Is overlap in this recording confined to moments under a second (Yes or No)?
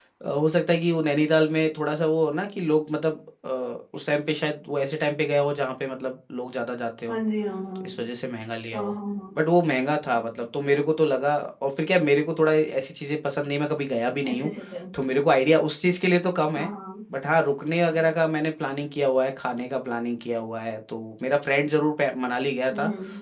Yes